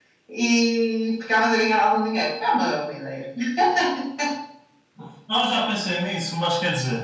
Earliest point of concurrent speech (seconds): none

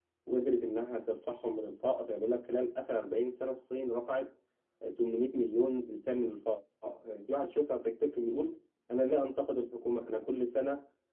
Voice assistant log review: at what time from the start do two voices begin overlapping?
none

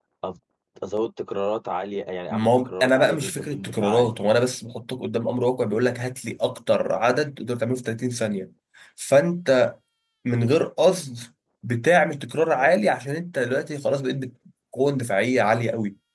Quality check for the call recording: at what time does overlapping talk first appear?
2.3 s

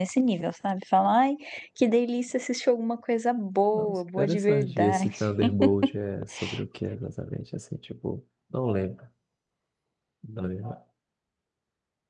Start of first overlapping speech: 3.7 s

